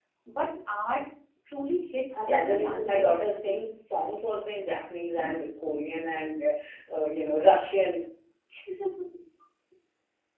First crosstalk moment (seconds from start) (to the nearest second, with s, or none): 2 s